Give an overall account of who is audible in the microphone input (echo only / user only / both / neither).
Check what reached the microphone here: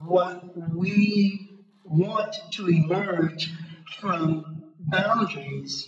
echo only